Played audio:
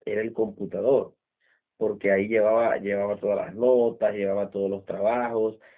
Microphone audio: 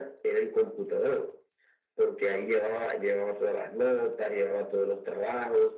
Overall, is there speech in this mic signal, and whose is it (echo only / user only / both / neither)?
echo only